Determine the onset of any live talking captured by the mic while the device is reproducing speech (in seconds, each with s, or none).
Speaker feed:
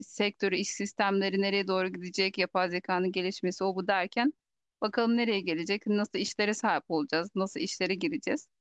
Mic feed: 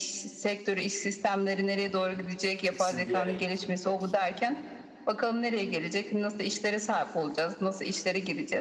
2.7 s